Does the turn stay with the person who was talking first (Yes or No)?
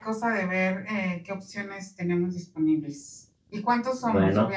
Yes